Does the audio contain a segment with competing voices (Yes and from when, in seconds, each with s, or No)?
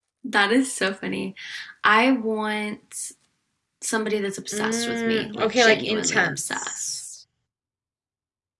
Yes, from 4.5 s